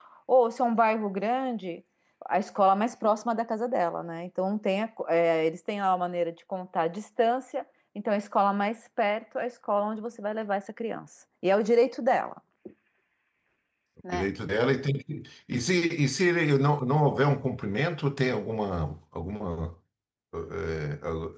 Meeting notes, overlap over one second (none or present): none